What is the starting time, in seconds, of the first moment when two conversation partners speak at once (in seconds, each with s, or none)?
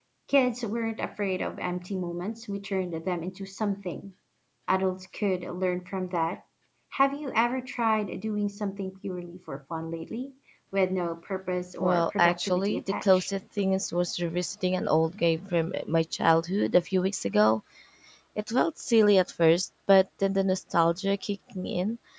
11.8 s